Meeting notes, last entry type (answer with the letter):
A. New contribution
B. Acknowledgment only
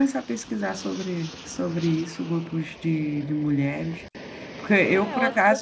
A